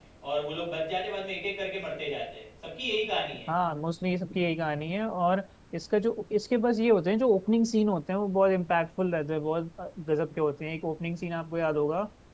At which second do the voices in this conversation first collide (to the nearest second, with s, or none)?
none